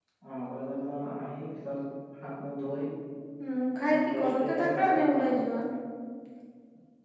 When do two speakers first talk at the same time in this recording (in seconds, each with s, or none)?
3.9 s